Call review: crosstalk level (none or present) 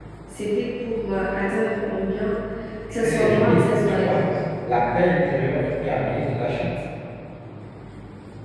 present